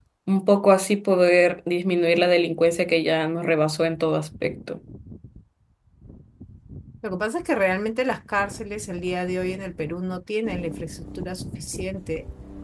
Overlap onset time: none

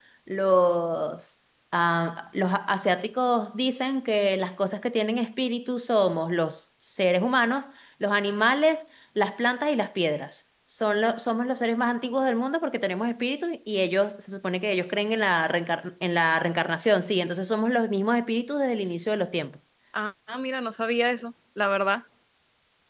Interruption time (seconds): none

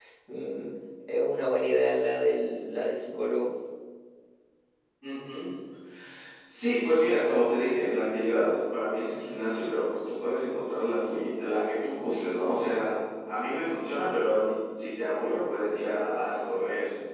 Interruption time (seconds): none

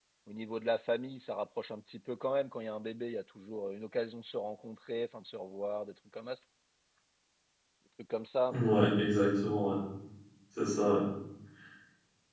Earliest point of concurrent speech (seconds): none

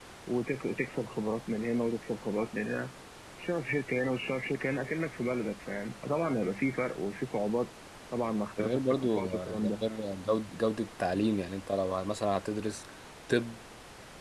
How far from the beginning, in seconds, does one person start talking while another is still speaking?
8.6 s

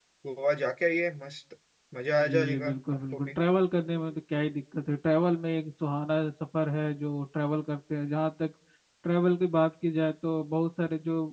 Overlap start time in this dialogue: 2.2 s

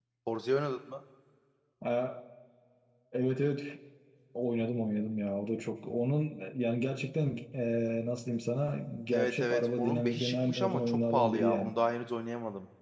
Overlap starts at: 9.1 s

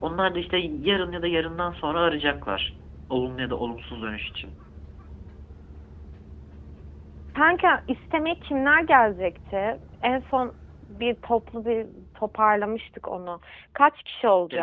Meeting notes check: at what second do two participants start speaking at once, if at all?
none

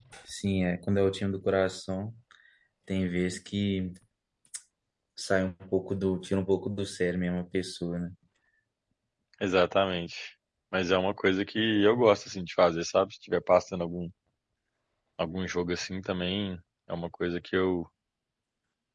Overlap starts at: none

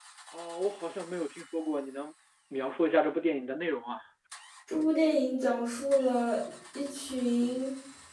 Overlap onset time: none

